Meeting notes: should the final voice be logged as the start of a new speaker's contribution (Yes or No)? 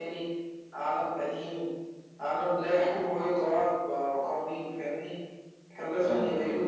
No